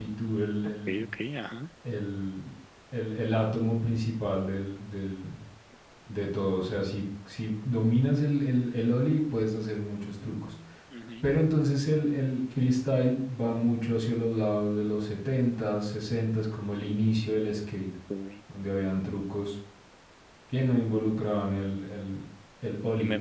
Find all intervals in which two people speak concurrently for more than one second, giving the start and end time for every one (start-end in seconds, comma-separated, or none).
none